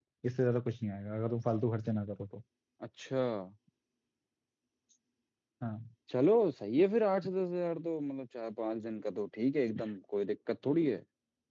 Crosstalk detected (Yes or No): No